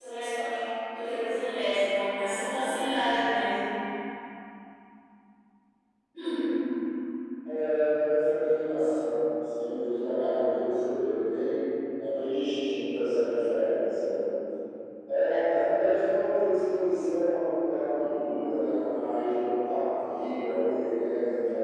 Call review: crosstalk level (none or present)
none